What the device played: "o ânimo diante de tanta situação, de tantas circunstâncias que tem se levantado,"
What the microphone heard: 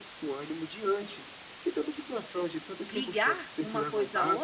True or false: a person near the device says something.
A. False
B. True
B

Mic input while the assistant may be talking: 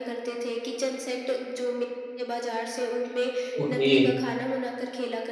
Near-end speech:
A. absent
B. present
B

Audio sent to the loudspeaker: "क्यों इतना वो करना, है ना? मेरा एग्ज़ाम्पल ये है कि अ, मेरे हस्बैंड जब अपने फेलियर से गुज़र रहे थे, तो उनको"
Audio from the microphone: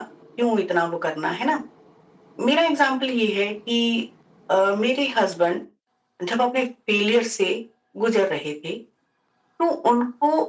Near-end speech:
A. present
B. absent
B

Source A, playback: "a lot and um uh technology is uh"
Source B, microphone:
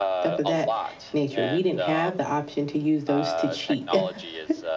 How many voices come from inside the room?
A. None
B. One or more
B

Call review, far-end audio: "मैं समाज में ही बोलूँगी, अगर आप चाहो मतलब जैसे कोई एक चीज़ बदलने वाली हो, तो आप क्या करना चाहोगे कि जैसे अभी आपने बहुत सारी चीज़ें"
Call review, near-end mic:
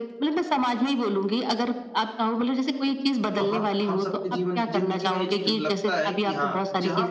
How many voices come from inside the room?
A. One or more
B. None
A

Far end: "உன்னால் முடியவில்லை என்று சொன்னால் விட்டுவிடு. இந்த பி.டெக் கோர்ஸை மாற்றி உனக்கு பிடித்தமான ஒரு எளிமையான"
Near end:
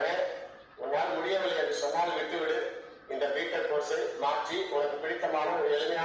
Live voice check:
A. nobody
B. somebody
A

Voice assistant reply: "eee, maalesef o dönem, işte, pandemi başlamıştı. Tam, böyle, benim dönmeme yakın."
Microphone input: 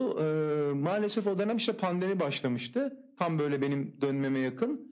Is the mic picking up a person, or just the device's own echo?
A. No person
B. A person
A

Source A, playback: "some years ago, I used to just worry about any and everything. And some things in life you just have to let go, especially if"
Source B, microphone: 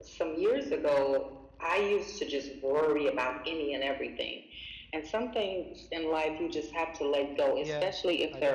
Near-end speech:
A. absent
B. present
B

